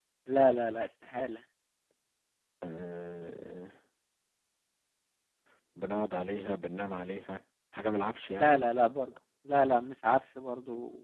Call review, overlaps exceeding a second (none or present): none